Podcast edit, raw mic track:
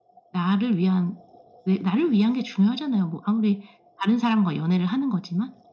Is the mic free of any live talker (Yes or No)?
Yes